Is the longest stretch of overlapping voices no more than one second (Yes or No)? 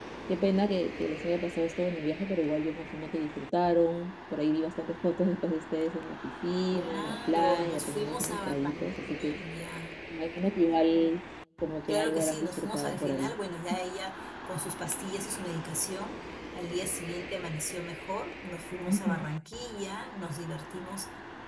No